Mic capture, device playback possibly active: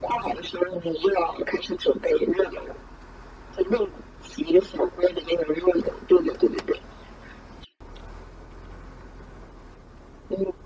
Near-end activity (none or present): none